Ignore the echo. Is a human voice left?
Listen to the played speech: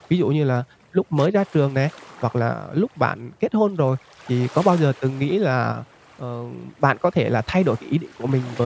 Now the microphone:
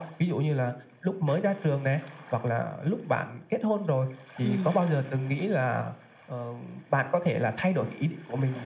Yes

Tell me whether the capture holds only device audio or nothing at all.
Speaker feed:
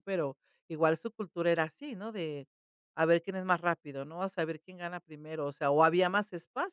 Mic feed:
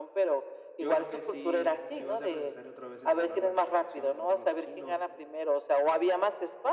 No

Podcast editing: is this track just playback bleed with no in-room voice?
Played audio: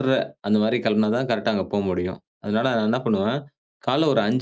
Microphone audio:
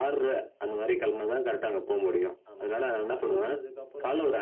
No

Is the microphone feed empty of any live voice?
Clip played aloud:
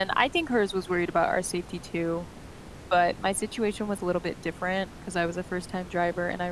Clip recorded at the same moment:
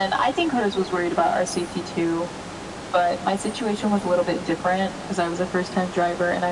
Yes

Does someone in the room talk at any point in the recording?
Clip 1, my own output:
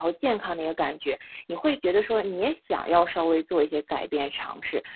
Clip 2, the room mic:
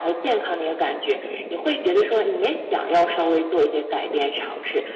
No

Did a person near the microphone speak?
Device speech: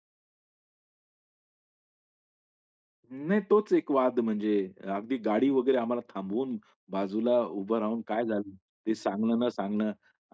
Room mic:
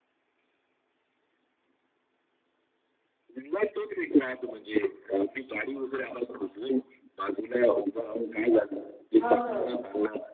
Yes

